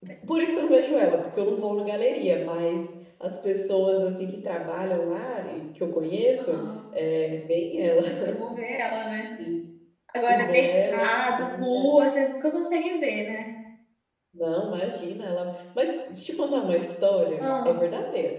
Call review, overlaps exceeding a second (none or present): present